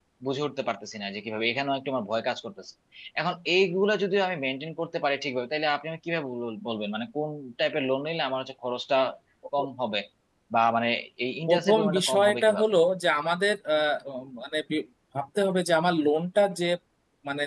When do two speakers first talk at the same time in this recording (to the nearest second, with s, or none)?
11 s